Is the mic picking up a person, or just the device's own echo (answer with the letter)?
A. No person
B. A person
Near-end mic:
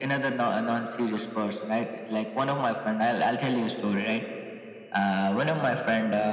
A